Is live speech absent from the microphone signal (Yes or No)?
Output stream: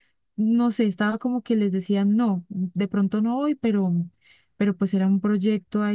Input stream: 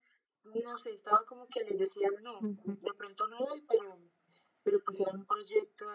No